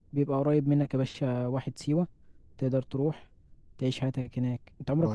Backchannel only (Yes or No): No